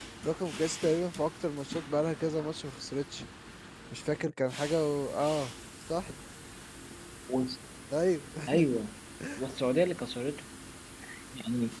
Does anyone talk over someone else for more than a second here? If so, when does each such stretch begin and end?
none

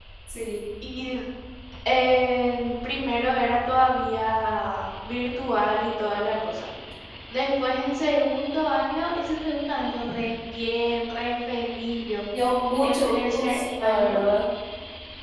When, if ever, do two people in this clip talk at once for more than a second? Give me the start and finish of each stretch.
12.8-14.2

